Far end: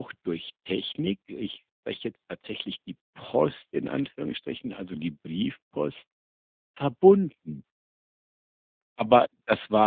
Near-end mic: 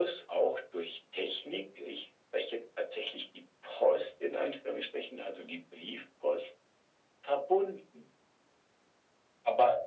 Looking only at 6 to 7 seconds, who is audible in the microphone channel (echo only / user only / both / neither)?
echo only